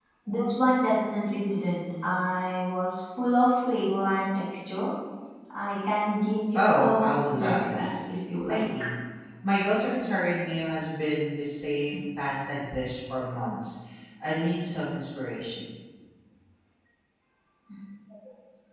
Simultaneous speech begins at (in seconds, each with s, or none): 6.5 s